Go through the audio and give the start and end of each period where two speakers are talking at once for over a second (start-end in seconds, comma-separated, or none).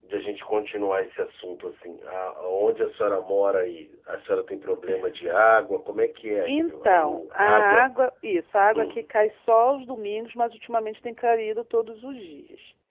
6.5-7.9